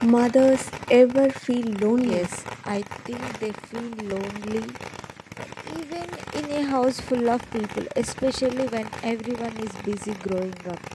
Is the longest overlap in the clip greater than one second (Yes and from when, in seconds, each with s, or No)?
No